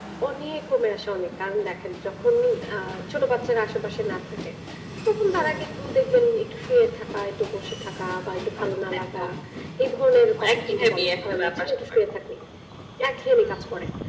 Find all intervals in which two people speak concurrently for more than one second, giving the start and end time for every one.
10.1-12.0

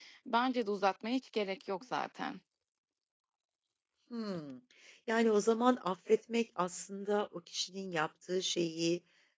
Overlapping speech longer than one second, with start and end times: none

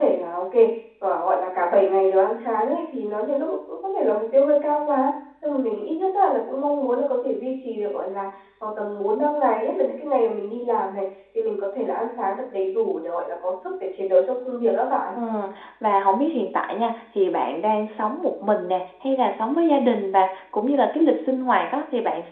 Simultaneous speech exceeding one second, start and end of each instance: none

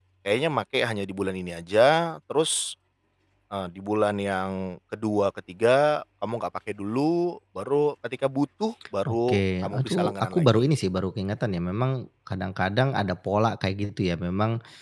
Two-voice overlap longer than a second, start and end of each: 9.1-10.6

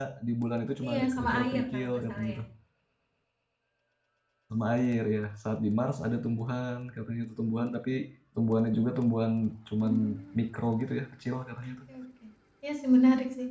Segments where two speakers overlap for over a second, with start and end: 0.8-2.4

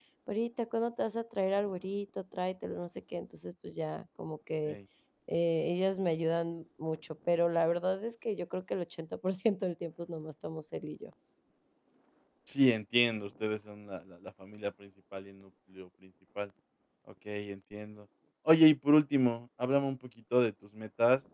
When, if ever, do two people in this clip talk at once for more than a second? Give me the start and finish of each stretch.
none

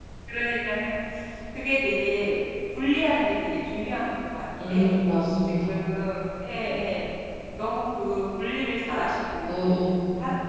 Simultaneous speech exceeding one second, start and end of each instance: none

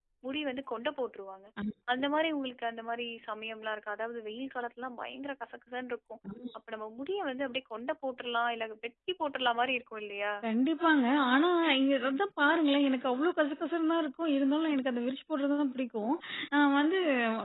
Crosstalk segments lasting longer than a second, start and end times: none

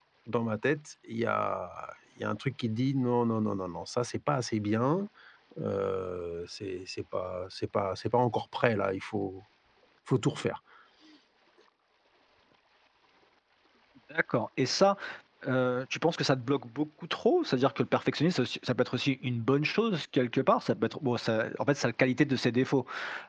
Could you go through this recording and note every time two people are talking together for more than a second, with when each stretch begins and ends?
none

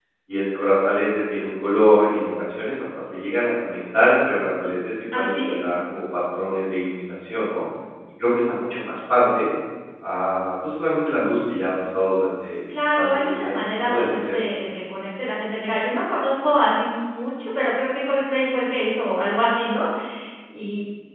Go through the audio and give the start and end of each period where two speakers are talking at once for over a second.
12.9-14.4

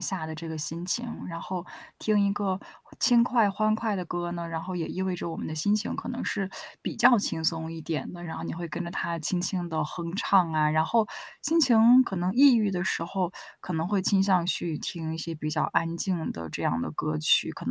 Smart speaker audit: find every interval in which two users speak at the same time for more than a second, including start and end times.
none

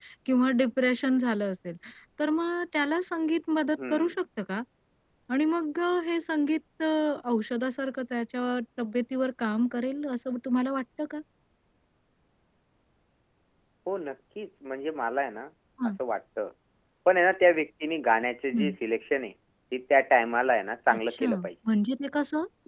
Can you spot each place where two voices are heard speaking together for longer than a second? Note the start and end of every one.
none

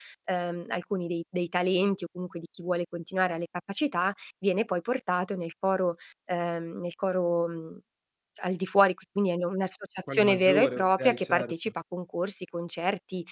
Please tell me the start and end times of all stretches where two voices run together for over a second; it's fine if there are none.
10.1-11.5

